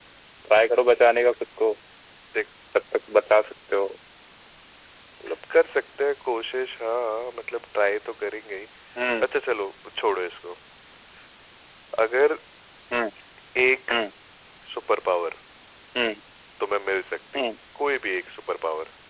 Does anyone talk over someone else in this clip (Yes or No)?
No